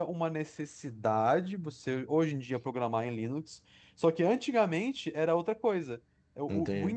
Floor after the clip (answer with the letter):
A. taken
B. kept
B